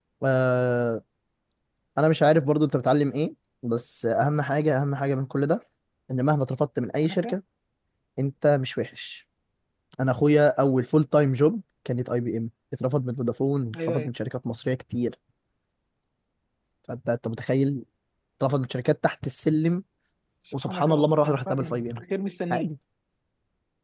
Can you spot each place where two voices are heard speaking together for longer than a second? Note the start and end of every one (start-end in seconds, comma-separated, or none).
20.6-22.0